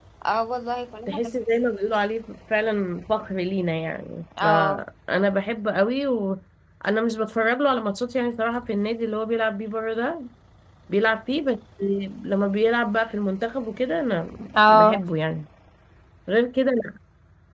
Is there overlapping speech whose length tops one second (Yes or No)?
No